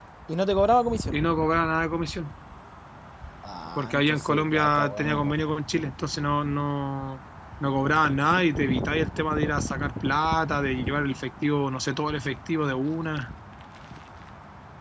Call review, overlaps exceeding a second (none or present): present